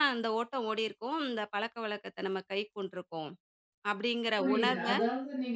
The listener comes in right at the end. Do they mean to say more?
Yes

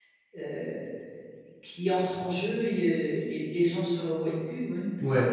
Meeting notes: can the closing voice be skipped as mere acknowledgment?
No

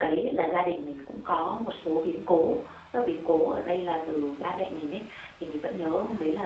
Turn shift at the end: No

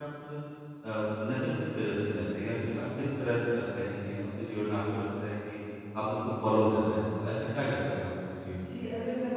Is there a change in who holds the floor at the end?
Yes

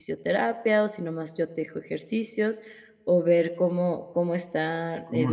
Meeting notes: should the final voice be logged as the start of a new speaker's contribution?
Yes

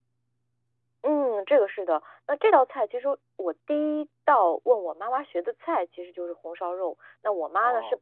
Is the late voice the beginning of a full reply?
No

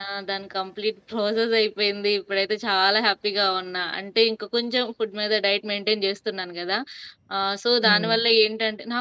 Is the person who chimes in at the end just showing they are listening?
Yes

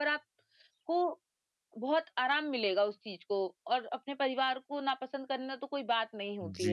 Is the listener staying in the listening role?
No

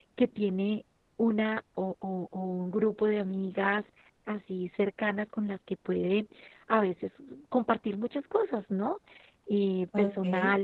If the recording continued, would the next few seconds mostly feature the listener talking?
No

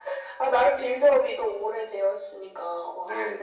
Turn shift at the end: Yes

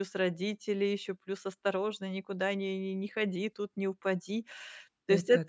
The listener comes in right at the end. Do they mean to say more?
No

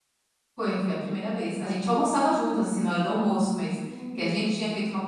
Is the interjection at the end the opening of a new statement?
No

